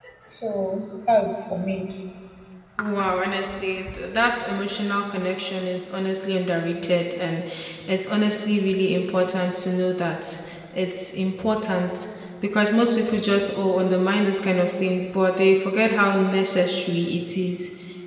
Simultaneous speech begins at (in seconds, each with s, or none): none